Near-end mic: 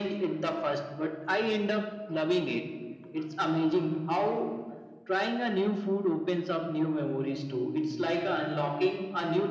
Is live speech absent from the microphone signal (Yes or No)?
Yes